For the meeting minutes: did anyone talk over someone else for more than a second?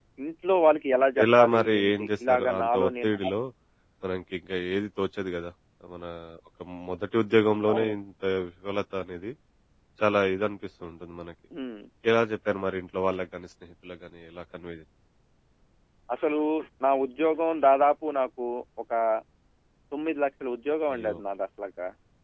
Yes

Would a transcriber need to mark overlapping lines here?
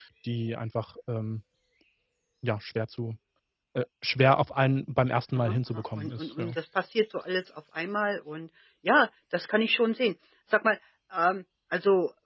Yes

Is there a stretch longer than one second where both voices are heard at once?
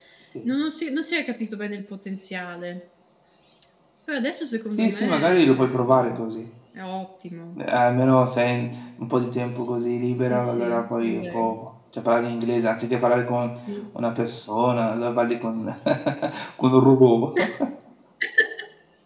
Yes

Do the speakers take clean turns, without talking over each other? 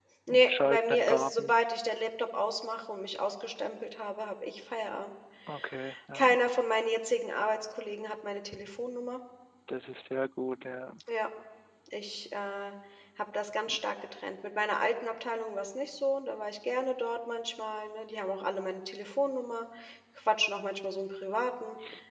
No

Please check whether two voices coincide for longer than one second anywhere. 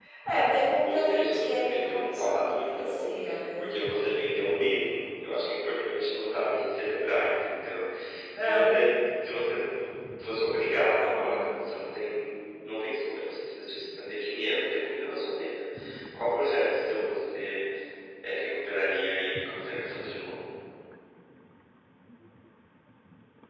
Yes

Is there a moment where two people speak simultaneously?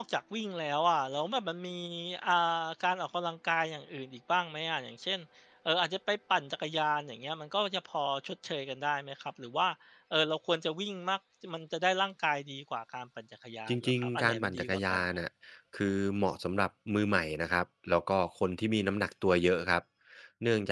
Yes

